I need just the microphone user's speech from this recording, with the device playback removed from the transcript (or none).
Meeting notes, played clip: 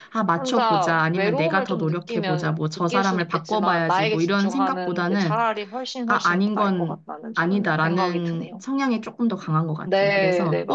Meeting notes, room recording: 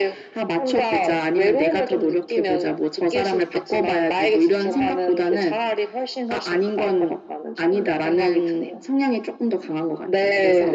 none